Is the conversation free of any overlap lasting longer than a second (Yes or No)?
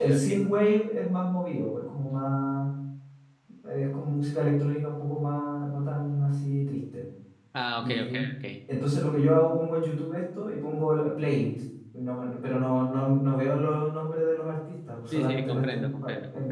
No